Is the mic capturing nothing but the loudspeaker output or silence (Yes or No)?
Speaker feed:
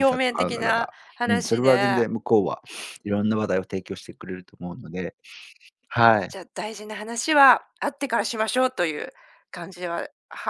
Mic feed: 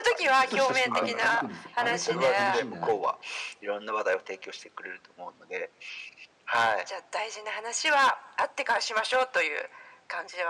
No